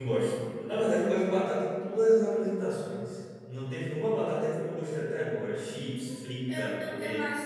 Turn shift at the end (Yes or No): Yes